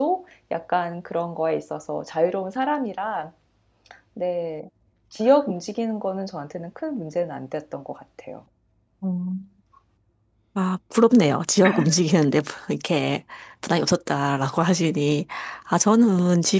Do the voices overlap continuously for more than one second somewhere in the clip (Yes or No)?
No